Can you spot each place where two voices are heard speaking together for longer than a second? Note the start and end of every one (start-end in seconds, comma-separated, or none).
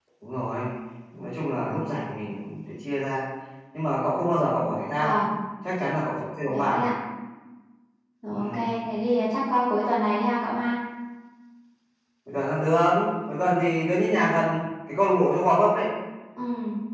none